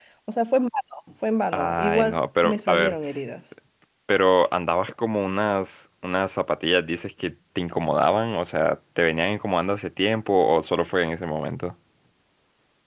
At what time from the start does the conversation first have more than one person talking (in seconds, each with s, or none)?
1.5 s